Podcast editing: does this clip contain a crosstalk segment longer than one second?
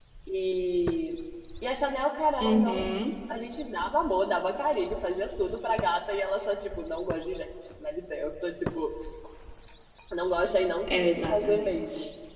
Yes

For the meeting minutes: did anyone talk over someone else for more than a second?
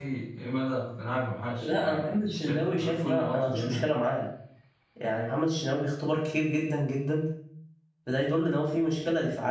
Yes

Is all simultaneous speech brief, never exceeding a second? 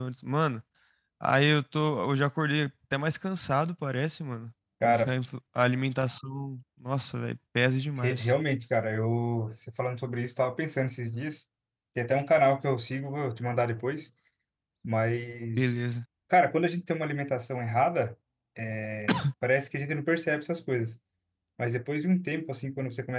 Yes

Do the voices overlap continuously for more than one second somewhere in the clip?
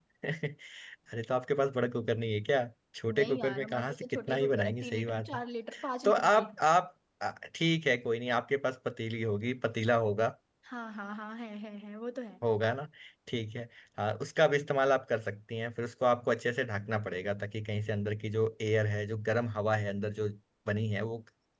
Yes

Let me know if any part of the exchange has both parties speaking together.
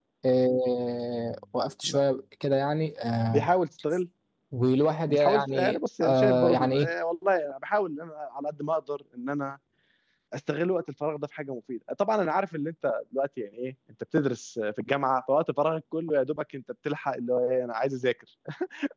Yes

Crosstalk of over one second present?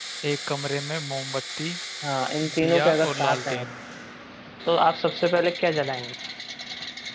Yes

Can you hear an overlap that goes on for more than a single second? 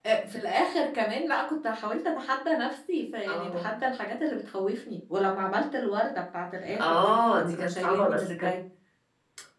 Yes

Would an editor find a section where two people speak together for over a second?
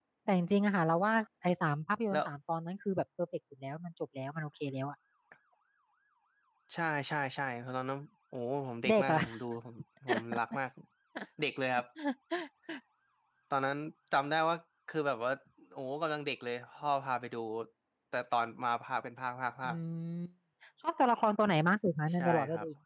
No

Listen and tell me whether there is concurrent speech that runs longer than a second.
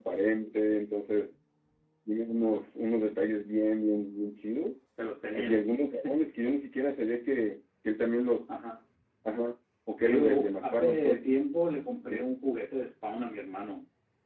Yes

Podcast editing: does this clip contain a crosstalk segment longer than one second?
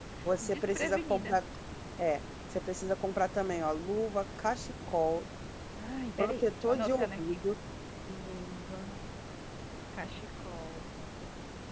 Yes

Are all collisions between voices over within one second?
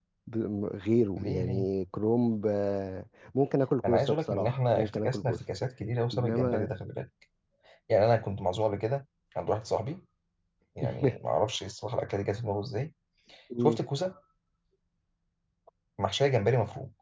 No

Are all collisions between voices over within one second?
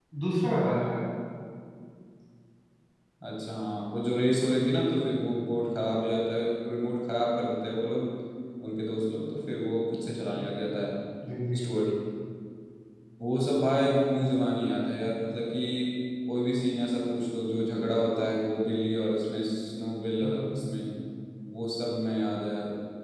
Yes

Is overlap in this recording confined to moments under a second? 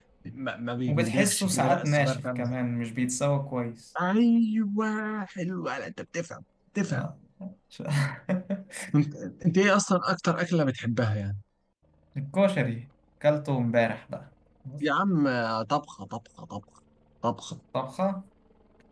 No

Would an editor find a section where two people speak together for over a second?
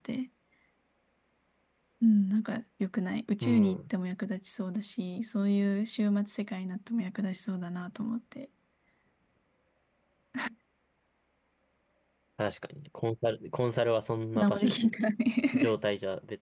No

